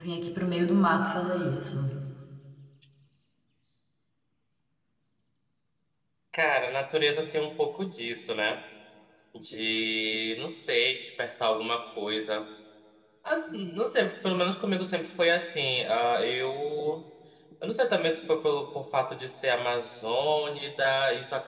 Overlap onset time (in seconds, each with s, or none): none